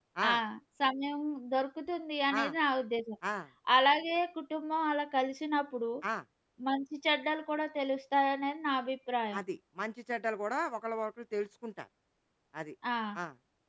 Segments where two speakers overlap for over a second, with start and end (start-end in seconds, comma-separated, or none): none